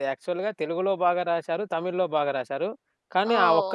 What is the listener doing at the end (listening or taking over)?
taking over